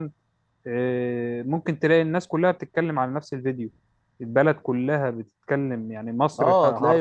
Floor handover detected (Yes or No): Yes